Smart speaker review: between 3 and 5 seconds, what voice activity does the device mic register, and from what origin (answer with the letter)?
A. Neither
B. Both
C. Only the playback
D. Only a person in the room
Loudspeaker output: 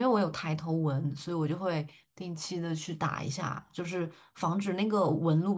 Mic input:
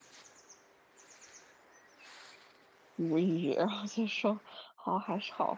D